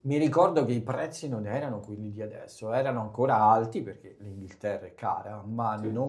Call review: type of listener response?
listening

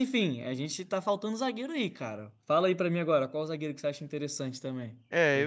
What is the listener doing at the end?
taking over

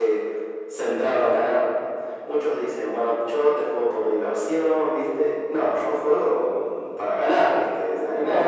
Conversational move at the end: taking over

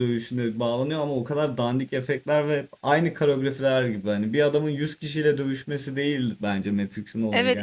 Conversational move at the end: taking over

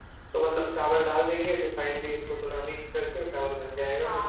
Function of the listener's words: taking over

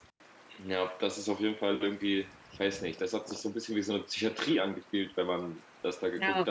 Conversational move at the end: listening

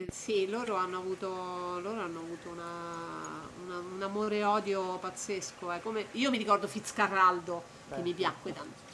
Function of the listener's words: listening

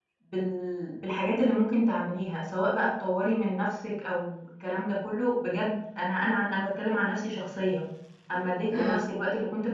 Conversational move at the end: listening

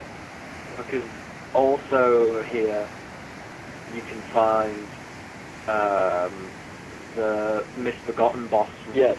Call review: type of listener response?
taking over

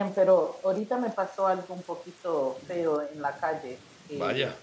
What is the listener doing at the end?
listening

